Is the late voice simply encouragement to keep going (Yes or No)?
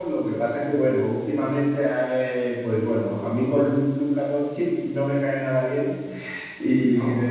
Yes